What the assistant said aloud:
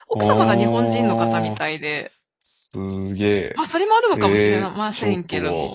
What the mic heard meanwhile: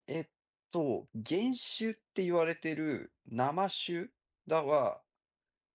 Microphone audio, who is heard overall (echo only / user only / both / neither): user only